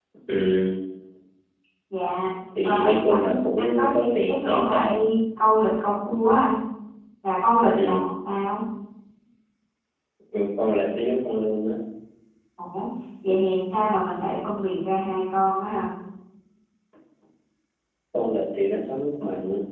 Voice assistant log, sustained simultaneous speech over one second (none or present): present